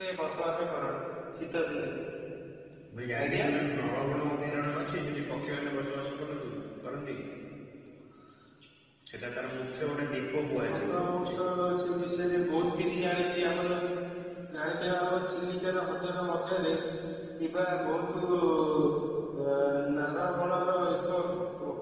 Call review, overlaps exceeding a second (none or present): none